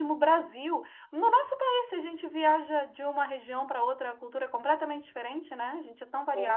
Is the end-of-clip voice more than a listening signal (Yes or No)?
Yes